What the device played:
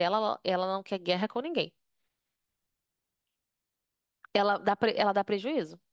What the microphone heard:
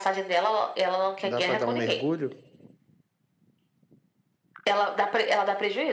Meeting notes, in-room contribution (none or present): present